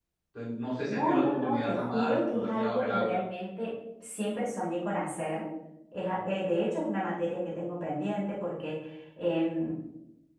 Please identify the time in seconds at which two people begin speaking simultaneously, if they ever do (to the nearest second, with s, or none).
1 s